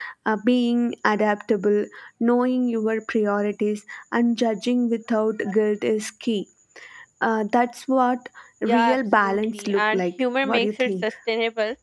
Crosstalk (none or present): present